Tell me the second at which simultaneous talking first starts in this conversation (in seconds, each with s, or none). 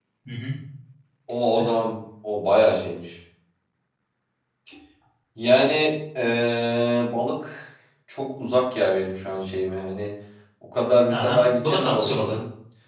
11.1 s